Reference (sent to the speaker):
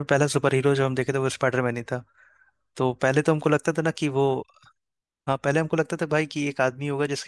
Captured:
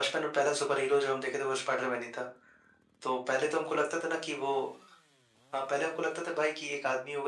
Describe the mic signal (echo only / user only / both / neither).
echo only